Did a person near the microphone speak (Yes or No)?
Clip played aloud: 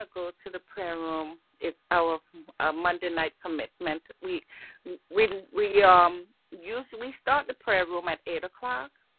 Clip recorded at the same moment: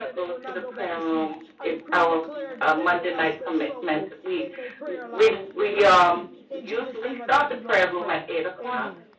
Yes